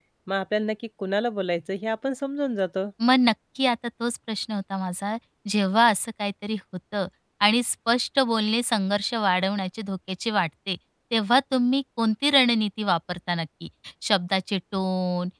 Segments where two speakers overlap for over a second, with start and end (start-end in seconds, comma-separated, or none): none